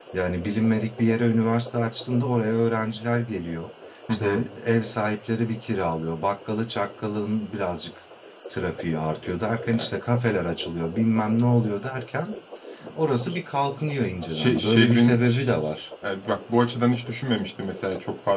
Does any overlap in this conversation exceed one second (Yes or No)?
Yes